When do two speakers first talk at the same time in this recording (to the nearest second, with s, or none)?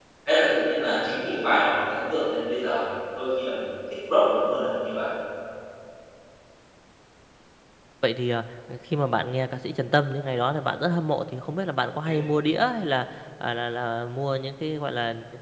none